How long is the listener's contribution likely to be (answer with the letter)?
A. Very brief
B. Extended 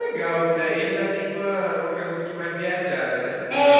B